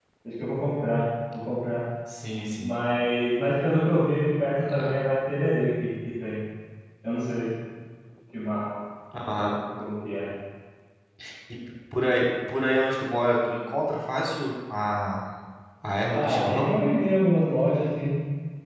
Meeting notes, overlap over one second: none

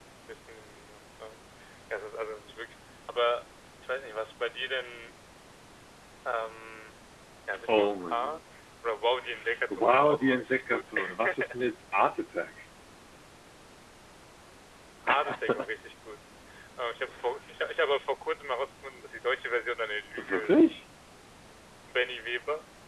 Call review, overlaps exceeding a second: present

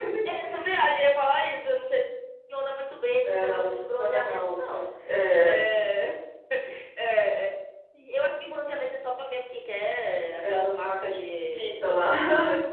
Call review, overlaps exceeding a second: present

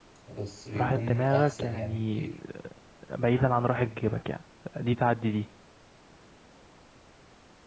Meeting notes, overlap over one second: present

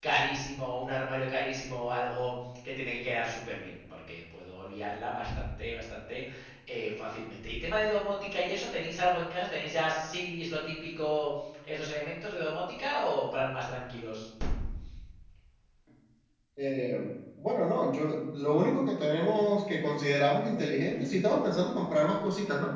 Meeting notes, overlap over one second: none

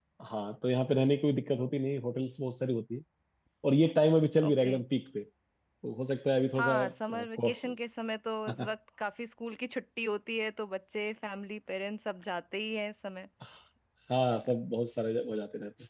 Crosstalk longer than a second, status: none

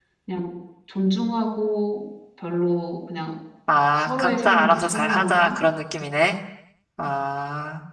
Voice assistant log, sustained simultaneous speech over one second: present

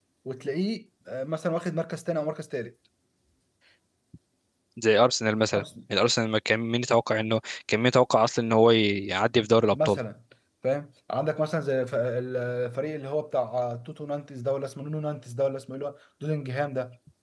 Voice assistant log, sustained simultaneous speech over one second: none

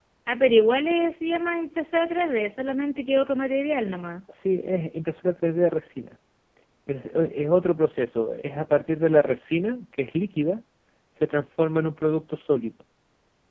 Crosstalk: none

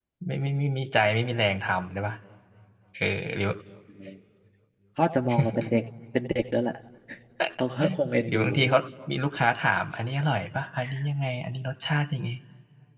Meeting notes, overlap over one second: none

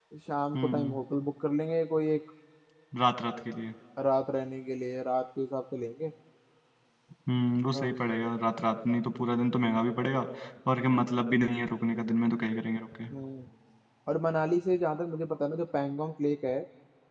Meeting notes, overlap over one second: none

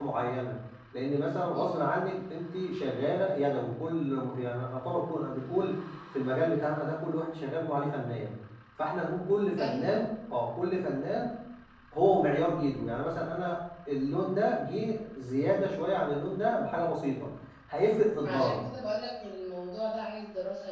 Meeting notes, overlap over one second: none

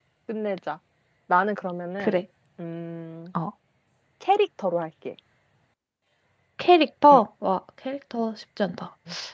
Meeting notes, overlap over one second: none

